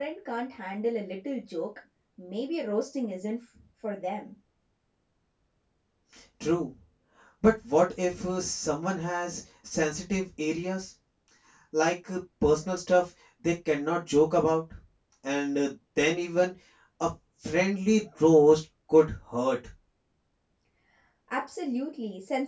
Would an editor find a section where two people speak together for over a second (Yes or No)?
No